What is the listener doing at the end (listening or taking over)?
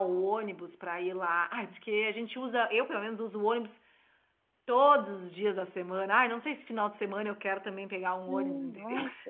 taking over